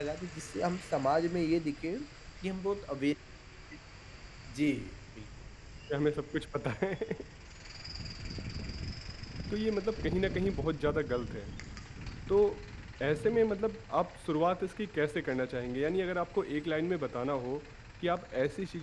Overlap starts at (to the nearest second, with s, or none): none